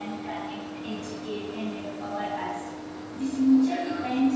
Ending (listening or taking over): listening